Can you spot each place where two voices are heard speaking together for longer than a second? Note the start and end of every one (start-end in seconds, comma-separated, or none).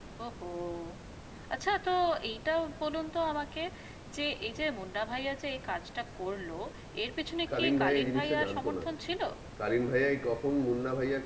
7.5-8.8